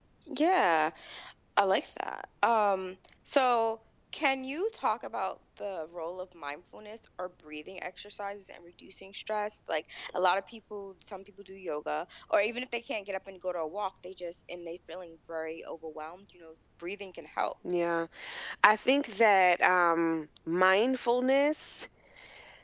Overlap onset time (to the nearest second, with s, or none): none